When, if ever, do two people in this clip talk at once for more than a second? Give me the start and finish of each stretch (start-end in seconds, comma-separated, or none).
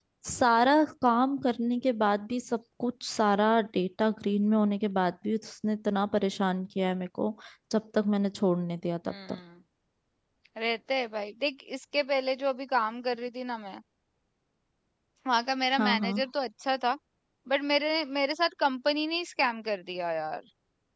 none